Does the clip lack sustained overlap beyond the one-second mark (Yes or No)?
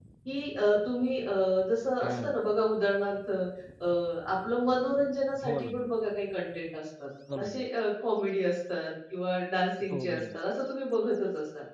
Yes